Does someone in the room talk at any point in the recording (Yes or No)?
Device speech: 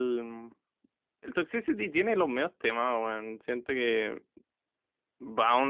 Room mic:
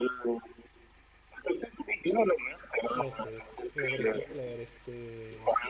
Yes